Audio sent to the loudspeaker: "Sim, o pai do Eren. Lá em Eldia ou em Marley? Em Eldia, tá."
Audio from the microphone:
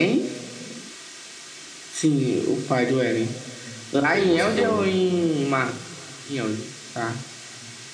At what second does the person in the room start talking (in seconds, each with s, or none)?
4.1 s